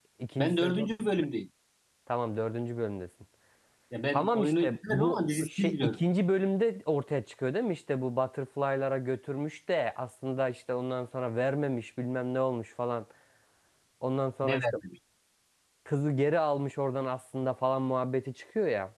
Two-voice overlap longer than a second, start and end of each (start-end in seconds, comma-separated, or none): 4.1-6.0